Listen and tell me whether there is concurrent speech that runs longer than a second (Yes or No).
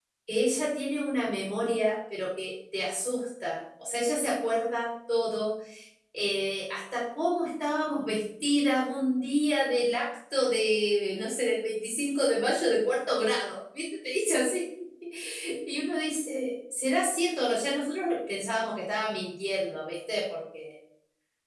No